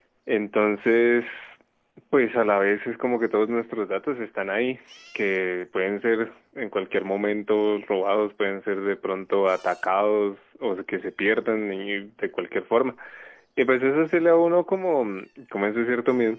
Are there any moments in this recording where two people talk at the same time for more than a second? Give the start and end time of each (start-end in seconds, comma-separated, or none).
none